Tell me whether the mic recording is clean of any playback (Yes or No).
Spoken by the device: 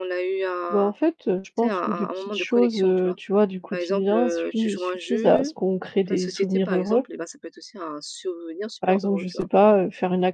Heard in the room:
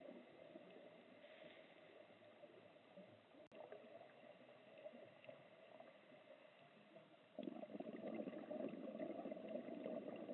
Yes